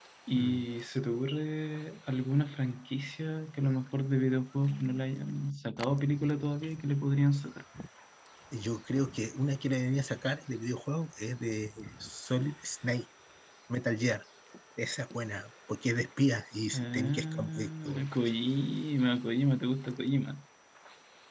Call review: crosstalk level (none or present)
present